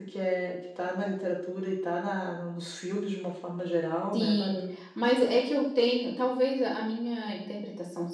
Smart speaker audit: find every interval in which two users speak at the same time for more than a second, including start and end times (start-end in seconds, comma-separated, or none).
none